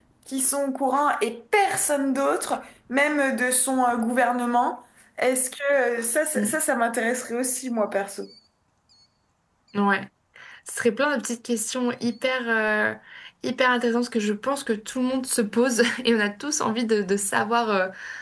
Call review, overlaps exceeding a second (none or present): none